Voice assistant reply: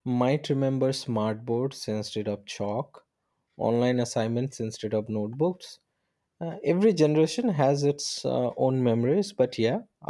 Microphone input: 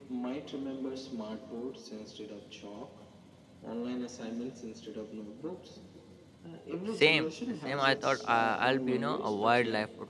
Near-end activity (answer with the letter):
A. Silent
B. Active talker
B